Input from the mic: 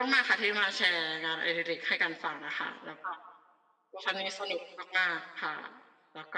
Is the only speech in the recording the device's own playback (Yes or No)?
Yes